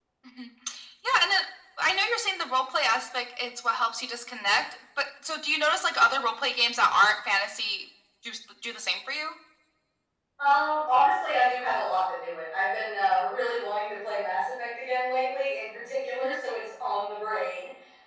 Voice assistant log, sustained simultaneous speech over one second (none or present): none